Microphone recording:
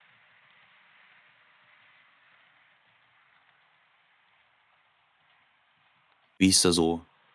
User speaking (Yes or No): Yes